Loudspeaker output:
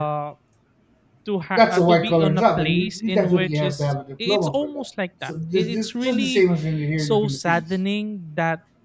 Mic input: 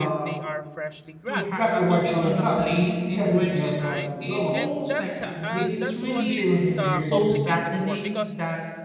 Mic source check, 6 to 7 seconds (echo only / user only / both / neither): both